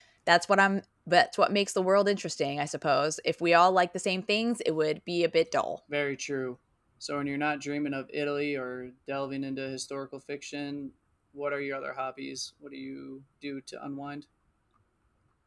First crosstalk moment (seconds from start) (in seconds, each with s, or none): none